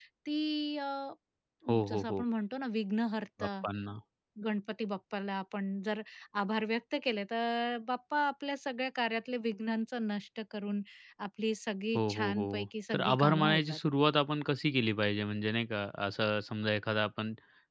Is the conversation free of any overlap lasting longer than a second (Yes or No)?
No